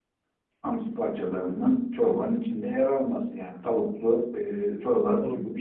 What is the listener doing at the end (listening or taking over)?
taking over